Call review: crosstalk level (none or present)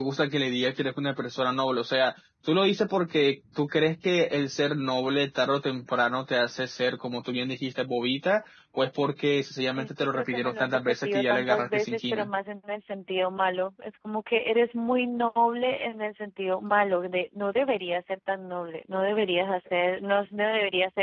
present